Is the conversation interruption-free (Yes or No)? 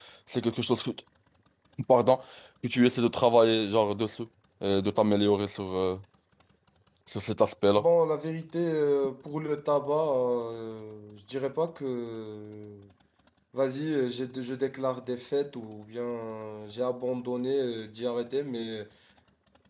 Yes